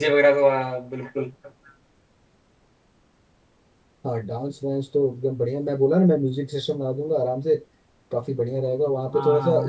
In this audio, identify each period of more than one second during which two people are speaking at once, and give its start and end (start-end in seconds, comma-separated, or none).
none